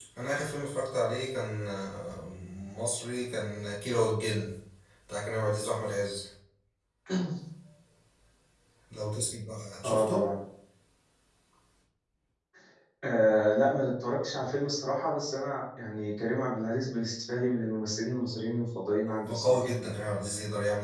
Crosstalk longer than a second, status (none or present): none